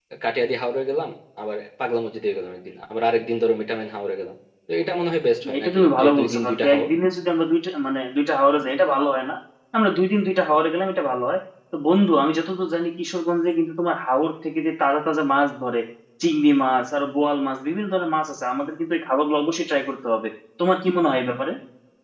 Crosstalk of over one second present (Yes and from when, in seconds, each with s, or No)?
Yes, from 5.5 s